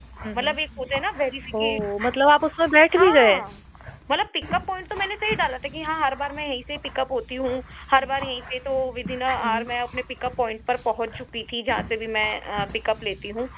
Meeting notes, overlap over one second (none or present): none